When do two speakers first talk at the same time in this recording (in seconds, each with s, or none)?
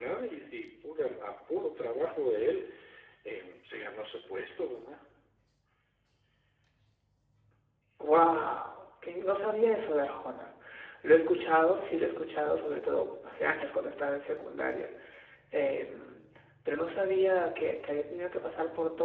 none